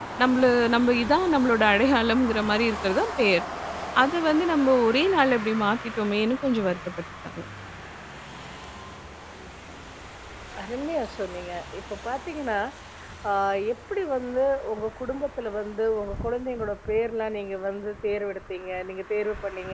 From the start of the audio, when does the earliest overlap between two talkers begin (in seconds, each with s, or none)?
none